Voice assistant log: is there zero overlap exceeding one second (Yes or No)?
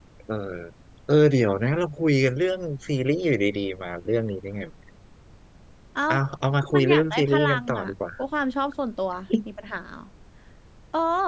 No